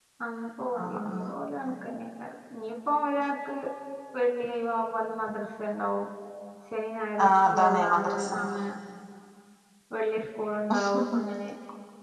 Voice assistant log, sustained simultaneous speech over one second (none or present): present